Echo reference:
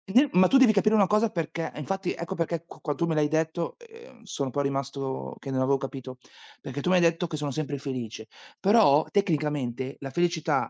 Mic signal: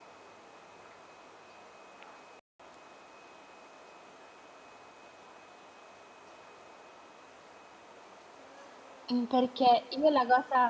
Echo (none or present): none